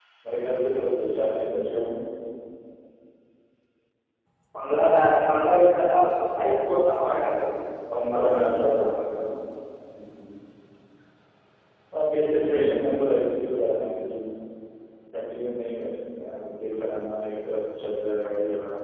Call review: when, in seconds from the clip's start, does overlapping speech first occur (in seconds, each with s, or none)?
7.9 s